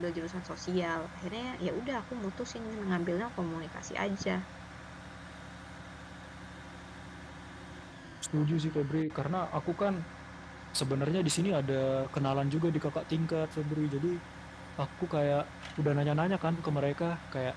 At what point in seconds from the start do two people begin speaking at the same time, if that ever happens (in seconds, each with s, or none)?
none